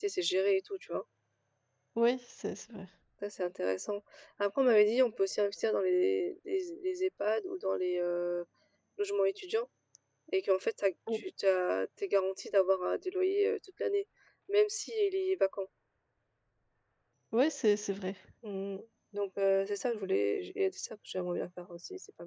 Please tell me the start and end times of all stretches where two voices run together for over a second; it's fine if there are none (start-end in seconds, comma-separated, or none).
none